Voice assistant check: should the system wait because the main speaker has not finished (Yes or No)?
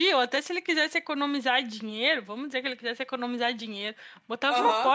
Yes